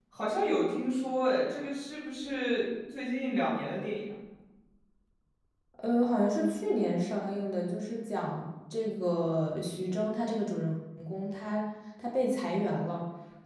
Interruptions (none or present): none